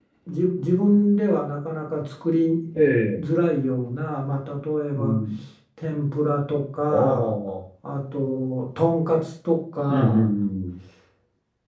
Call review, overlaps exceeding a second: none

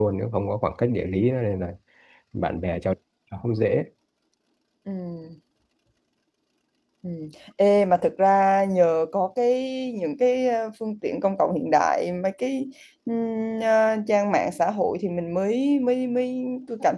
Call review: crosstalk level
none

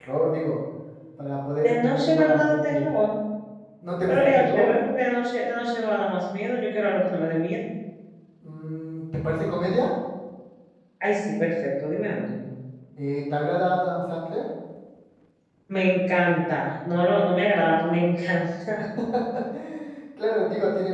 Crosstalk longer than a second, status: present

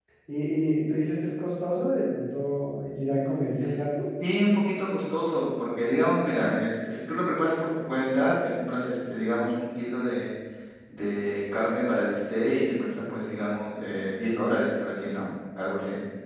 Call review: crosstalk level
none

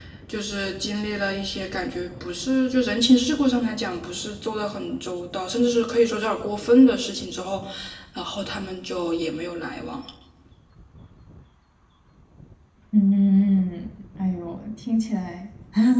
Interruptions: none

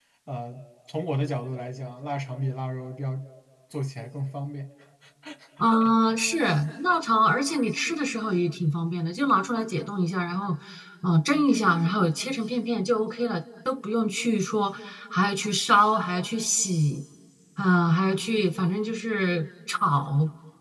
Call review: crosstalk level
none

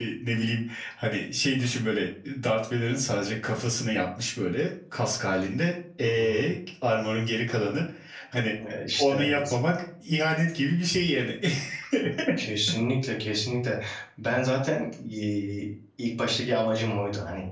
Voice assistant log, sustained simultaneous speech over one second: none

